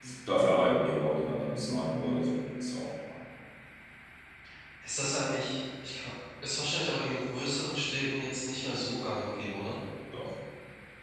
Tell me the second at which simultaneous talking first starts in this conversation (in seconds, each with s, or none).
none